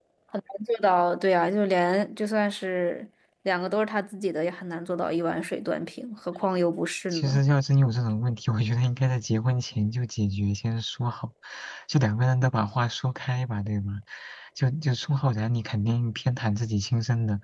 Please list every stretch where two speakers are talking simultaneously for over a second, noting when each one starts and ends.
none

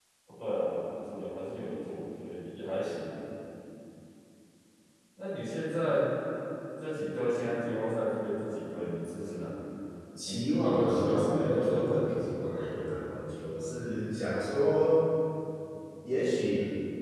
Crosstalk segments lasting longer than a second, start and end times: 10.3-12.2

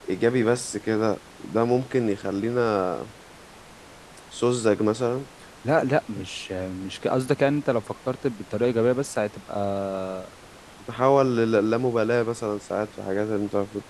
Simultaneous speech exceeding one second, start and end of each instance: none

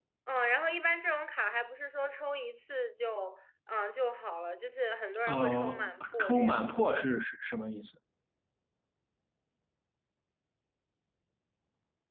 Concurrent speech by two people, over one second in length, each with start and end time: 5.3-6.6

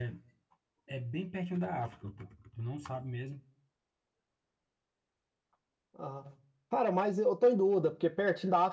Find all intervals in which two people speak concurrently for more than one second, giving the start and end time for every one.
none

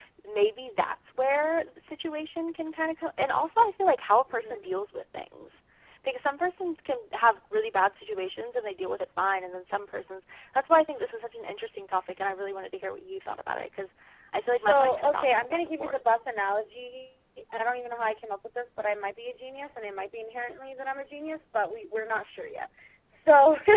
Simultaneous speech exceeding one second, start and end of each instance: 14.4-16.0

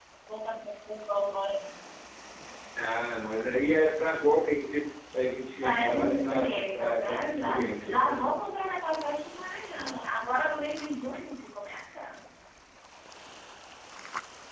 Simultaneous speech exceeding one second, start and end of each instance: 5.6-8.3

